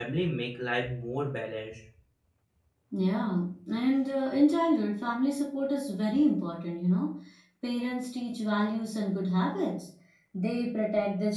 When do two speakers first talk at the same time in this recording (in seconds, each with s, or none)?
none